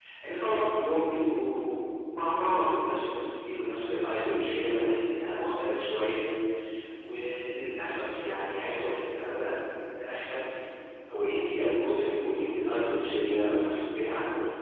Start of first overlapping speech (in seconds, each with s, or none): none